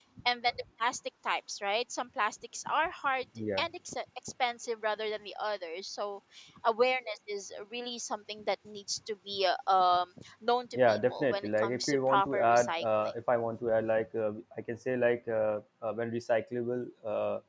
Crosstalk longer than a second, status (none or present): present